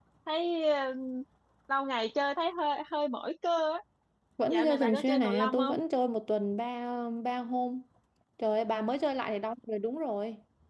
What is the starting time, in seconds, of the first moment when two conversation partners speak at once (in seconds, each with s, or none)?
4.5 s